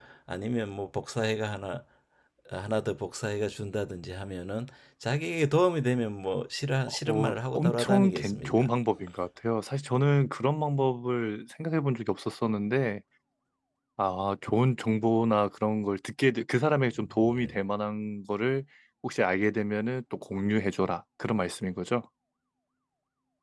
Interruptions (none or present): present